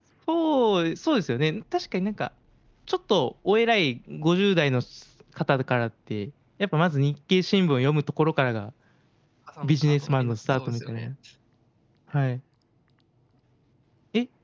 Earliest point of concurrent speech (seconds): 9.6 s

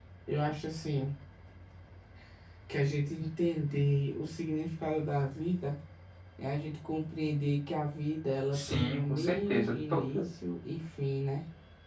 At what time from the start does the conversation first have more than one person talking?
8.5 s

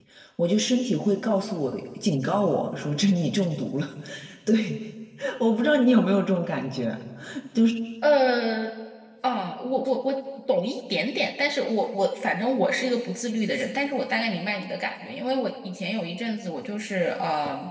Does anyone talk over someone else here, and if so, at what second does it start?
none

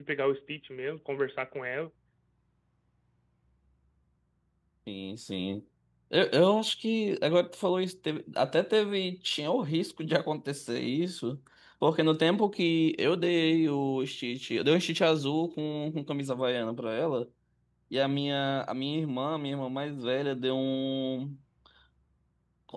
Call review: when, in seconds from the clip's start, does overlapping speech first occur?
none

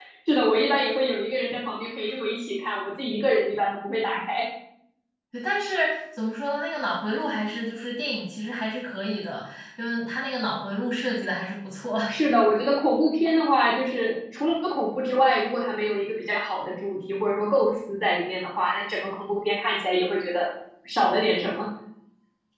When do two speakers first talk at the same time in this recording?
none

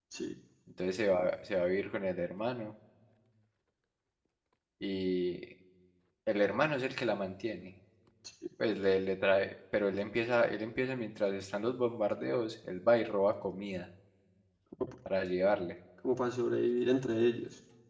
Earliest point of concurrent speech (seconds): none

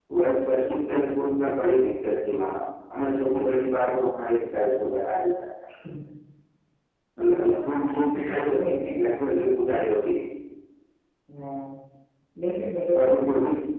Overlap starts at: 7.3 s

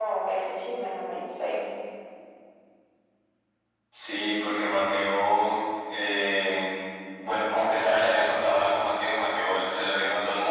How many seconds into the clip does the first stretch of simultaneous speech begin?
none

